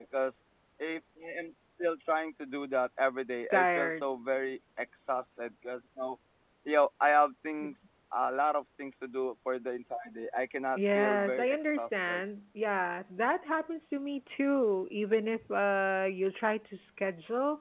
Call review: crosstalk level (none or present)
present